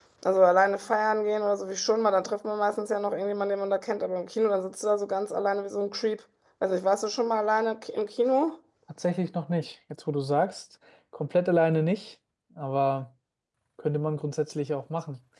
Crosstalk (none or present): none